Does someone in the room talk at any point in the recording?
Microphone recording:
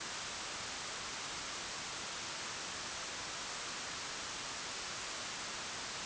No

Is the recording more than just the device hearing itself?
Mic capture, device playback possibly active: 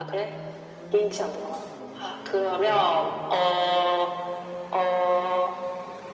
No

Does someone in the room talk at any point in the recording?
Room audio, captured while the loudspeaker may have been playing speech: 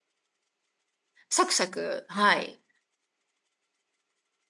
Yes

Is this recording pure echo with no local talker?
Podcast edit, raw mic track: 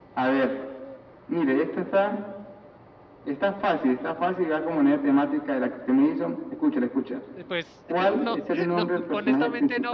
No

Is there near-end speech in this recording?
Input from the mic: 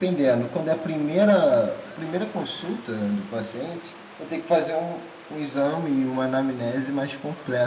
Yes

